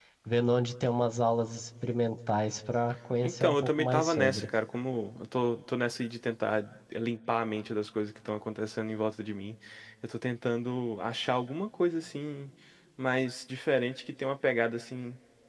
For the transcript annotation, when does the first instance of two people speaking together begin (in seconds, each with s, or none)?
3.2 s